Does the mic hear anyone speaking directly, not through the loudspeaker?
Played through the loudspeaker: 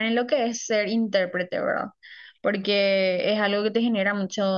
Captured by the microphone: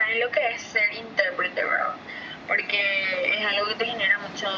No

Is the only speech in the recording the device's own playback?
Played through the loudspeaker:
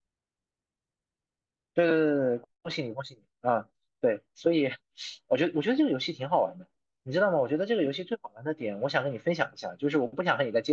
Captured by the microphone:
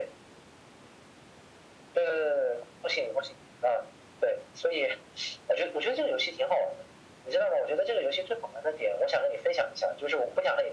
Yes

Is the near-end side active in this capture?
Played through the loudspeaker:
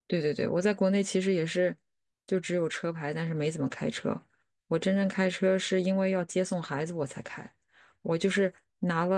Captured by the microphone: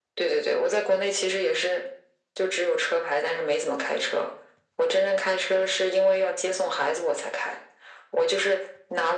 No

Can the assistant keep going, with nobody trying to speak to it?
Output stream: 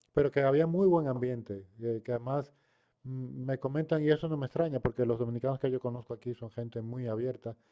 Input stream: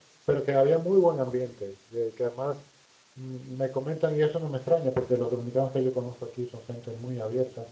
Yes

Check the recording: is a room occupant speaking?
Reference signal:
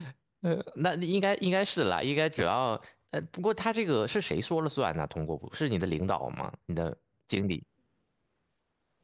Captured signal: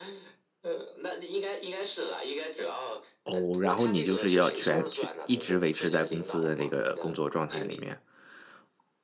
Yes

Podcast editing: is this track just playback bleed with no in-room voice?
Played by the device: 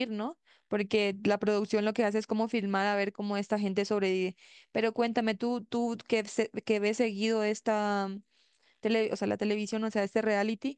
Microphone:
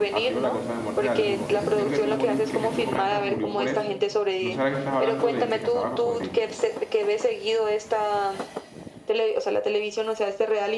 No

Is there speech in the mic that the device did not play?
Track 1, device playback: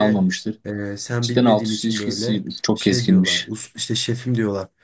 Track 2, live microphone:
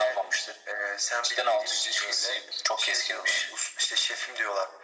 No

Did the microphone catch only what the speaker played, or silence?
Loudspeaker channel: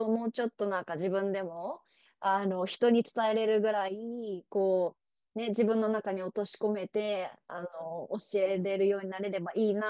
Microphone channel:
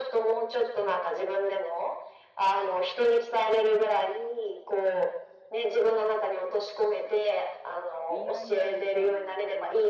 No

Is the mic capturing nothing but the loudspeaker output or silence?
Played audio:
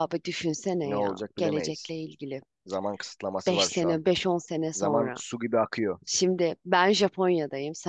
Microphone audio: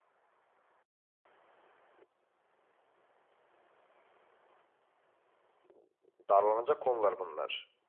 No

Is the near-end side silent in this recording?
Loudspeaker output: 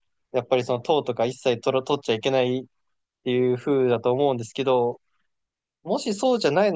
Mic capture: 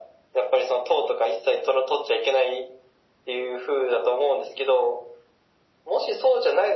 Yes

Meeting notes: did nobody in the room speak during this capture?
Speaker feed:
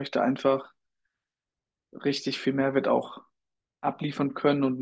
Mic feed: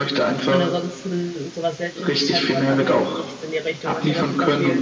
No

